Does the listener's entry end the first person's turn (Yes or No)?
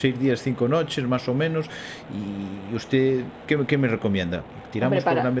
No